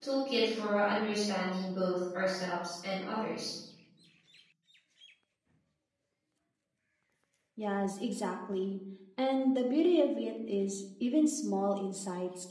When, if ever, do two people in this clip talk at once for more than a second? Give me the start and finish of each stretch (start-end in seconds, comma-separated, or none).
none